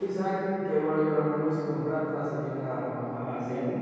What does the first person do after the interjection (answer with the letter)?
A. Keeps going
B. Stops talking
A